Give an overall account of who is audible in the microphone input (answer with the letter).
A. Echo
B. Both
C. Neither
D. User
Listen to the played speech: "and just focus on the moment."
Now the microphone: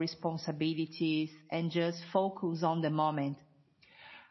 A